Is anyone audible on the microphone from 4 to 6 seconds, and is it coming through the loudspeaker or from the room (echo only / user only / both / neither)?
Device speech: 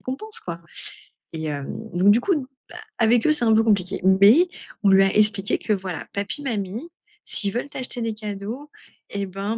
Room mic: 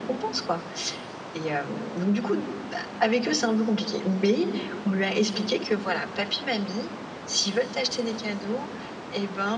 echo only